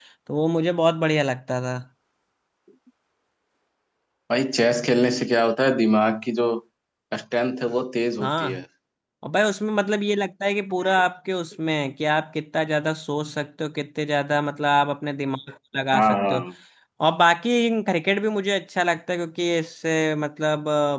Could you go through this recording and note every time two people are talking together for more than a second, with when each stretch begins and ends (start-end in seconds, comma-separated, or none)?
none